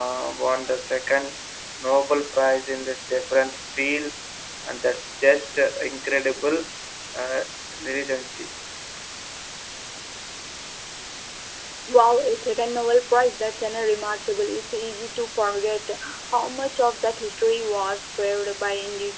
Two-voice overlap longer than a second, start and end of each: none

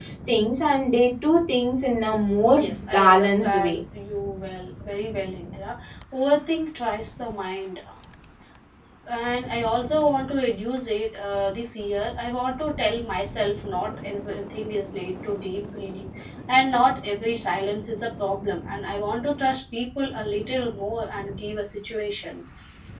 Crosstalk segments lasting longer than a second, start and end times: 2.4-3.8

